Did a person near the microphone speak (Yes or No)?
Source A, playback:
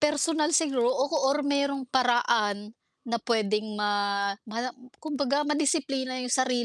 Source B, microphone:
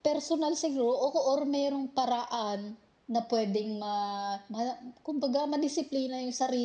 No